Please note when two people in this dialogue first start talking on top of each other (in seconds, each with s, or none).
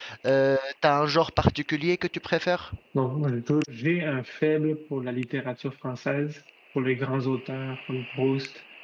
none